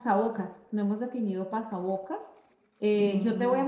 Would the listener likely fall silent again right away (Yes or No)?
Yes